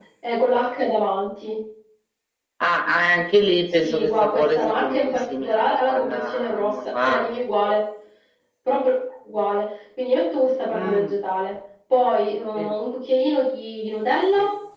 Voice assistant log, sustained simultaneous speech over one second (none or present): present